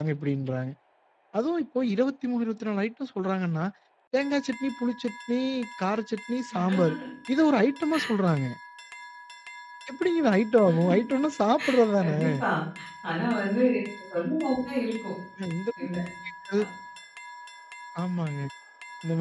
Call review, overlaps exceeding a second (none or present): none